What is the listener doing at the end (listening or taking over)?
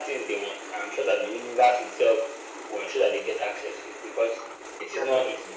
listening